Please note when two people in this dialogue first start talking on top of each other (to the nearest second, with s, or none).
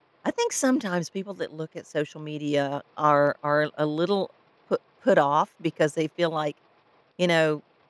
none